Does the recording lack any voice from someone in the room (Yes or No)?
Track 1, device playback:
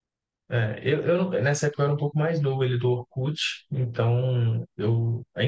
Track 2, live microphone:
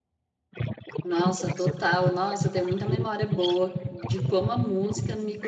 No